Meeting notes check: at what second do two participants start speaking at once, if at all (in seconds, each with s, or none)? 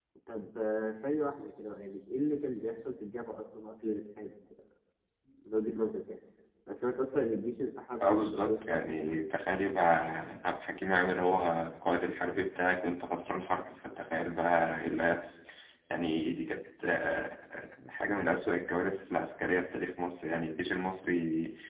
8.0 s